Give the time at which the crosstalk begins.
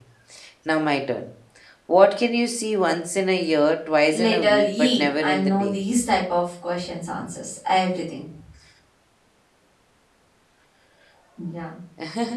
4.1 s

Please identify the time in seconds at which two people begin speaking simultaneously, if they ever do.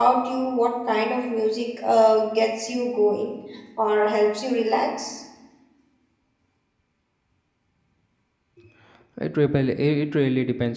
none

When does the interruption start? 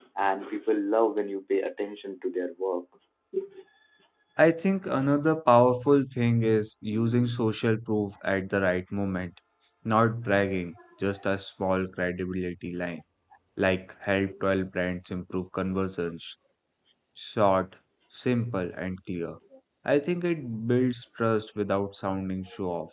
none

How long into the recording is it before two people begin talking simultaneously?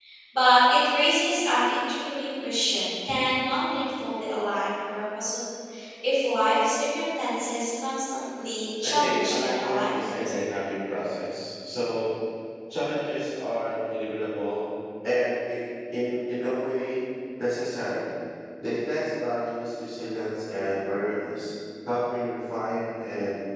8.8 s

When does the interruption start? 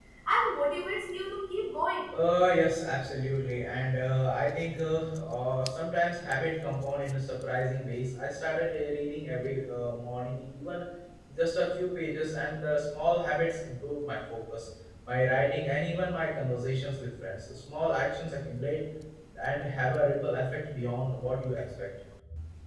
none

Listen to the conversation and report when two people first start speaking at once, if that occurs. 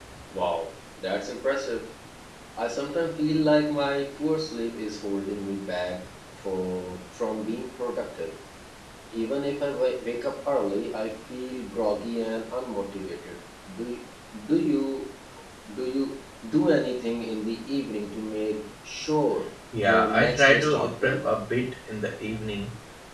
19.7 s

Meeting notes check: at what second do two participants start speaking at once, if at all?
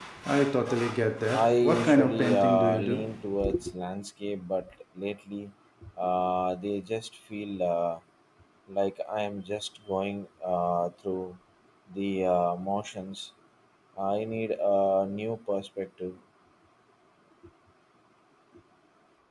1.3 s

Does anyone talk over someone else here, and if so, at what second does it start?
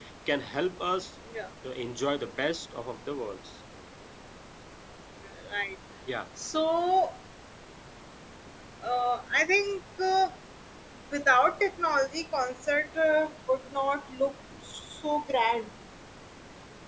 none

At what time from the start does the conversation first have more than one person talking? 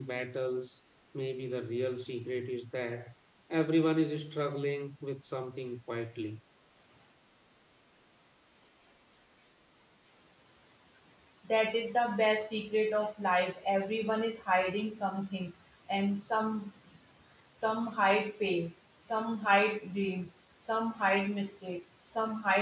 none

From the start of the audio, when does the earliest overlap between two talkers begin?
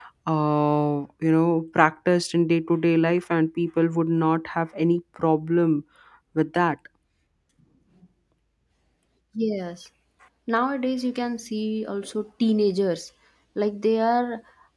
none

